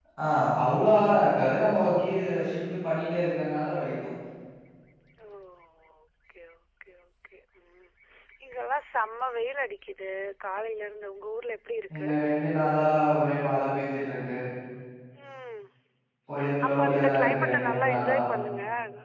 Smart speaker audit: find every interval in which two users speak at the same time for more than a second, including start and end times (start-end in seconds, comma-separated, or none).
16.6-18.2